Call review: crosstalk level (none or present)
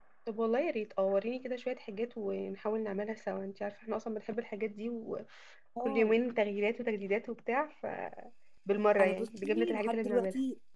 present